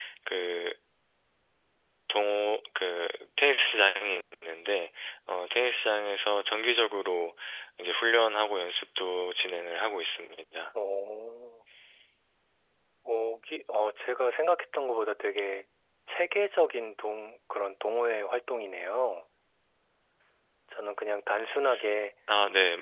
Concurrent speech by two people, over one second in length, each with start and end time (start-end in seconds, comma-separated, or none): none